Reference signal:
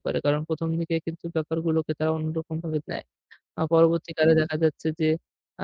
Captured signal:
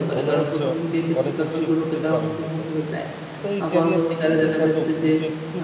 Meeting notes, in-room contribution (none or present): present